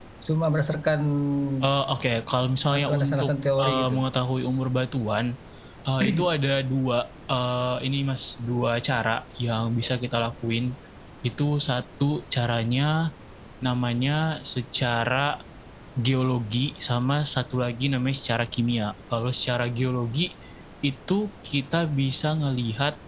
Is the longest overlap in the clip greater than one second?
Yes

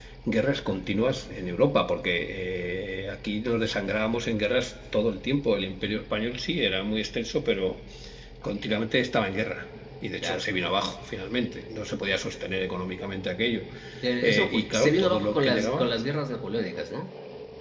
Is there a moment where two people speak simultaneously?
Yes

